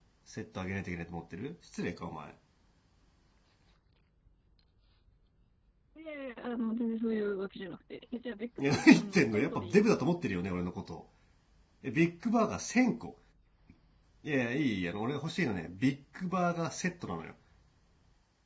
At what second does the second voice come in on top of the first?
8.6 s

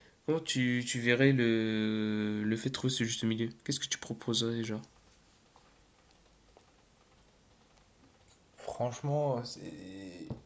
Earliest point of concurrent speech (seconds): none

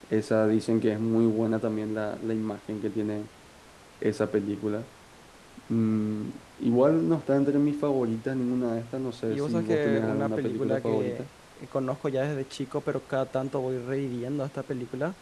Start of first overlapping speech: 9.3 s

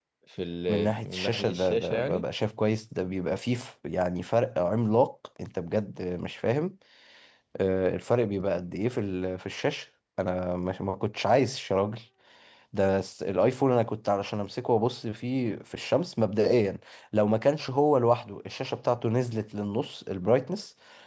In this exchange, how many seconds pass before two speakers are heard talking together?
0.7 s

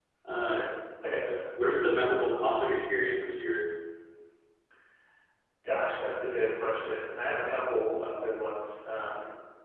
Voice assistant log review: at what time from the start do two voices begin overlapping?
none

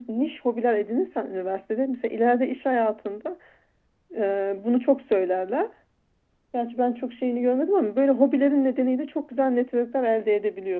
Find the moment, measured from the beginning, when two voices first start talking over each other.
none

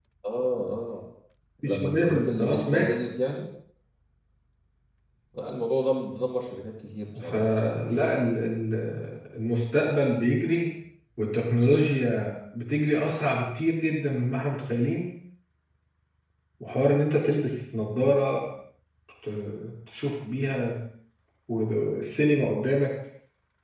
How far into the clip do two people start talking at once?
1.6 s

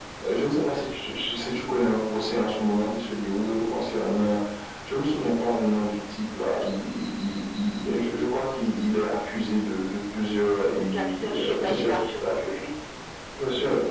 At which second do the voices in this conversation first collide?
10.8 s

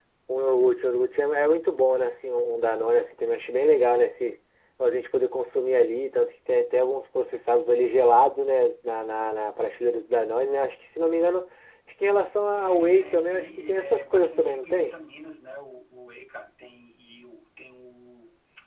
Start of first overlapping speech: 12.6 s

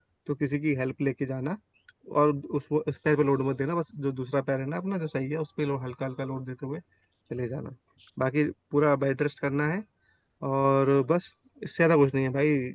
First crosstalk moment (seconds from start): none

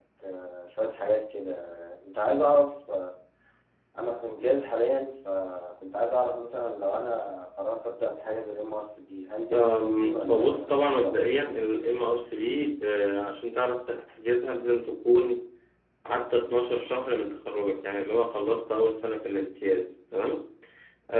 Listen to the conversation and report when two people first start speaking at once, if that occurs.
9.5 s

